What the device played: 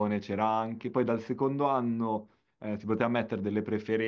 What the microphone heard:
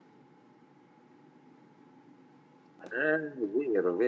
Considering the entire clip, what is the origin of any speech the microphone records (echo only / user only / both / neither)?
user only